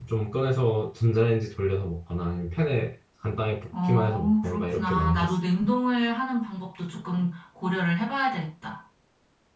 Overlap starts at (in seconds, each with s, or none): 3.7 s